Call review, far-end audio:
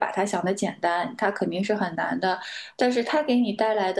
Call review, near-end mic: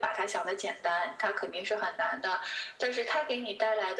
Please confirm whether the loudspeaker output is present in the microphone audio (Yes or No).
Yes